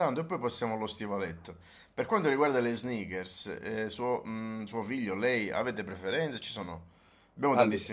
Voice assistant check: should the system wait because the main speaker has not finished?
Yes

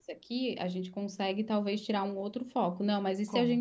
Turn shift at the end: No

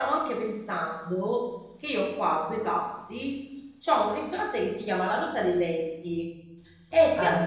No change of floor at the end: Yes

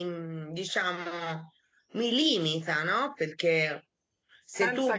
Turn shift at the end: No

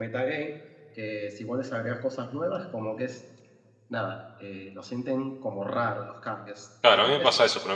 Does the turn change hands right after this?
Yes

